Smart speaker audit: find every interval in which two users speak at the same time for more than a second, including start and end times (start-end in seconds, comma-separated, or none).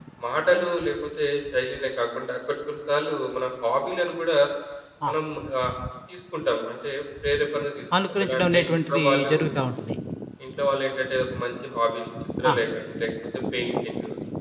8.0-9.3